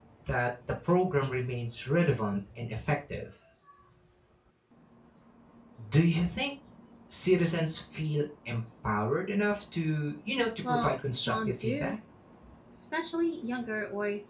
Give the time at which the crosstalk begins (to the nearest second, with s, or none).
11 s